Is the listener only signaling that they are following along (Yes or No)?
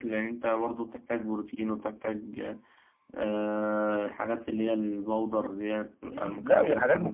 No